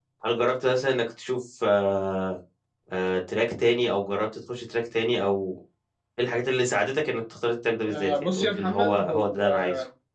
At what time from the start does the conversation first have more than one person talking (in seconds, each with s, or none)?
7.9 s